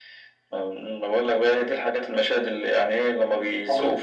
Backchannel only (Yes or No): Yes